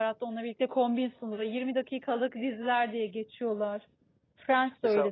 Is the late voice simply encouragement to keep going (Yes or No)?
No